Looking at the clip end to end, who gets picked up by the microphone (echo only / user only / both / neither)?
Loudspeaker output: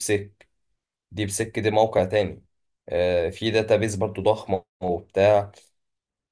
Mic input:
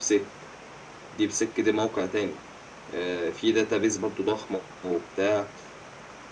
echo only